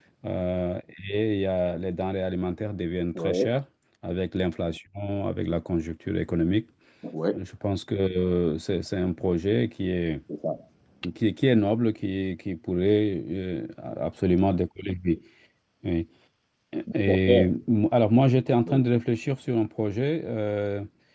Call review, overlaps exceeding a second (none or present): none